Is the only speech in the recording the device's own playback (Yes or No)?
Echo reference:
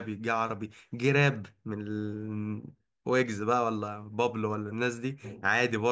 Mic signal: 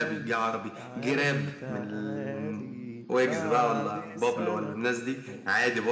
No